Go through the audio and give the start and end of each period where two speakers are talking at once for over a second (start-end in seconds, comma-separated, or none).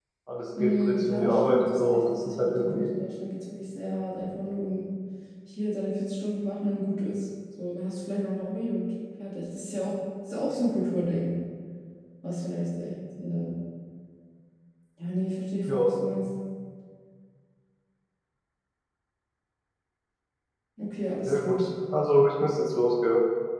0.6-2.9